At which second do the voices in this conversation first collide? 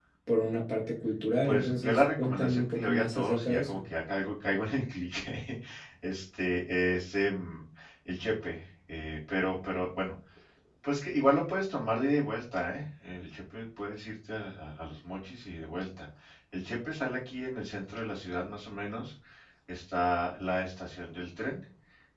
1 s

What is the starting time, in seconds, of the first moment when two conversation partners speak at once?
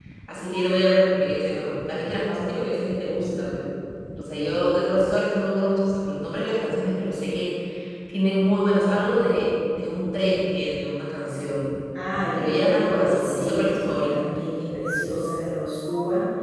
12 s

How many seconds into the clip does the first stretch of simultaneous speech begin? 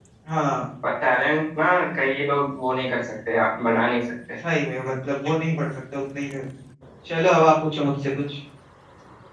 none

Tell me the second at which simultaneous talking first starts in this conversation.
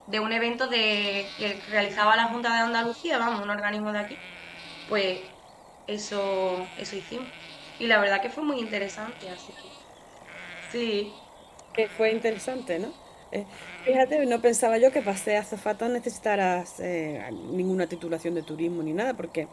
none

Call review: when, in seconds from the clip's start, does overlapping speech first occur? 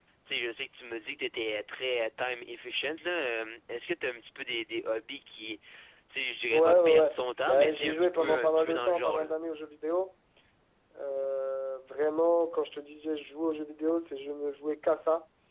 7 s

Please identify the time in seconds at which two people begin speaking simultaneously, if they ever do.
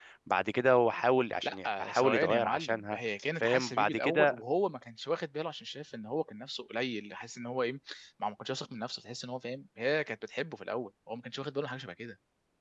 1 s

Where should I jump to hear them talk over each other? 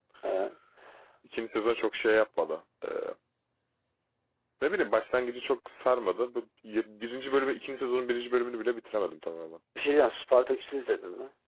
none

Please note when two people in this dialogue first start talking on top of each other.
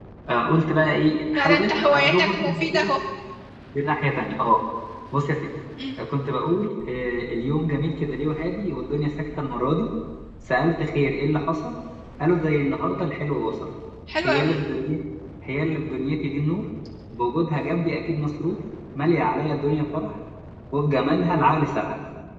1 s

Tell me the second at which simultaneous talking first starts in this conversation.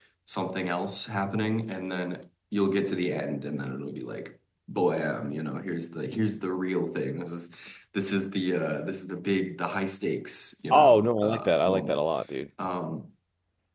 11 s

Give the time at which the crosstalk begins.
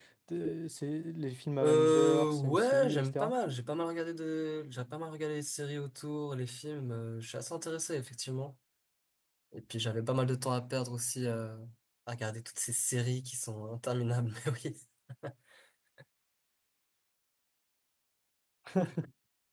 2 s

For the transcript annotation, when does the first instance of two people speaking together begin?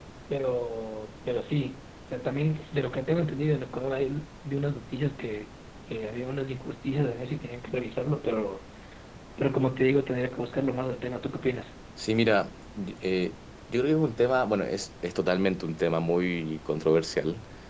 none

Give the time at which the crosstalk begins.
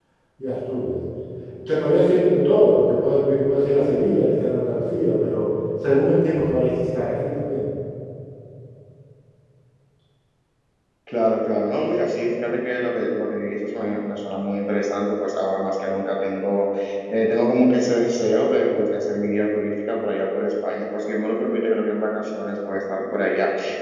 none

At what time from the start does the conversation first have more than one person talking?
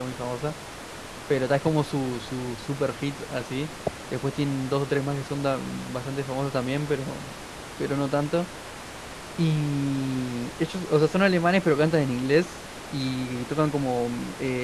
none

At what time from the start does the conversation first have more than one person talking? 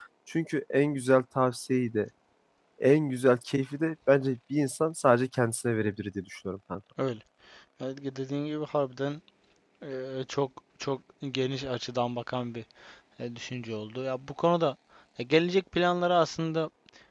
none

